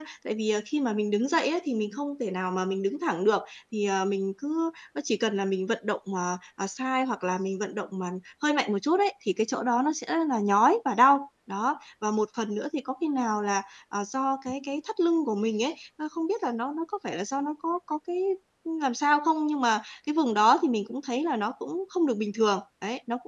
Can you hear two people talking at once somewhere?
No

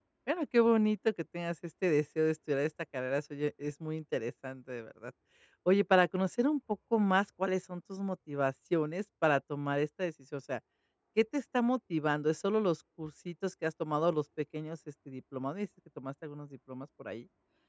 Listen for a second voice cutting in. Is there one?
No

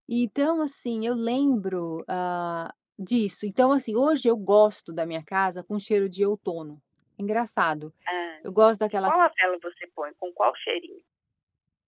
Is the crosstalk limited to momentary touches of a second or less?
Yes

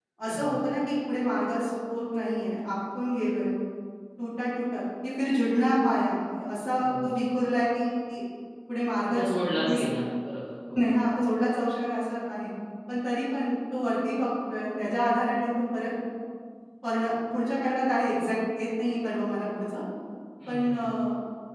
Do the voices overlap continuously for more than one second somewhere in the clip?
No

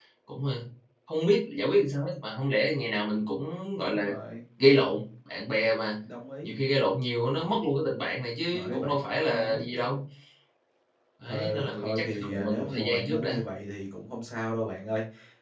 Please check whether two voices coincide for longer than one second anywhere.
Yes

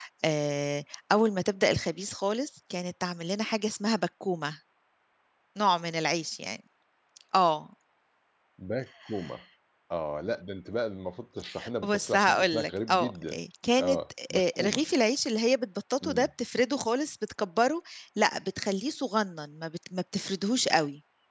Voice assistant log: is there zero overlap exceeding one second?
No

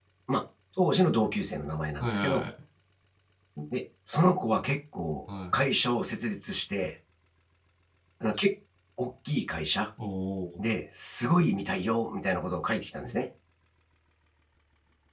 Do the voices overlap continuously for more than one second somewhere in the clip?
No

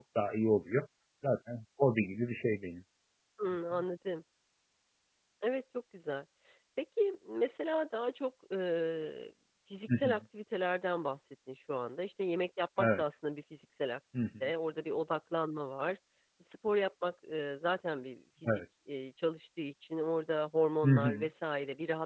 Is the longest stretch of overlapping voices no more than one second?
Yes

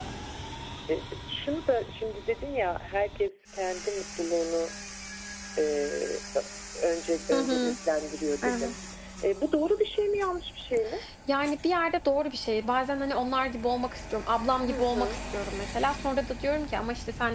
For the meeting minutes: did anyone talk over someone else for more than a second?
No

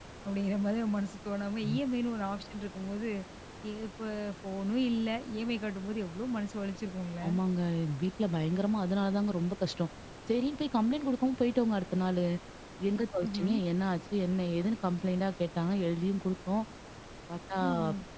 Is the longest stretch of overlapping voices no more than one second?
Yes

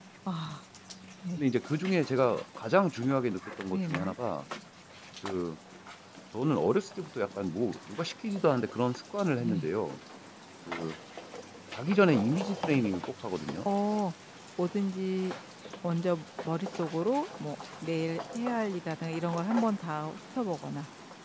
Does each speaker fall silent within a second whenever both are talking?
Yes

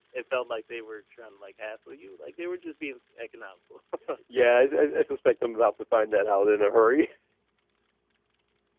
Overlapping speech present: No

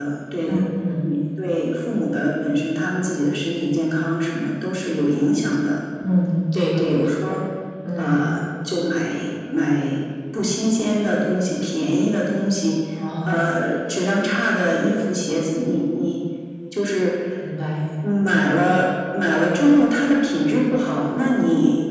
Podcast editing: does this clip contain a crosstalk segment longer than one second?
No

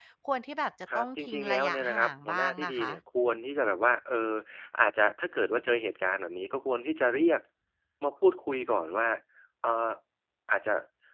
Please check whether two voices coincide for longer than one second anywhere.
Yes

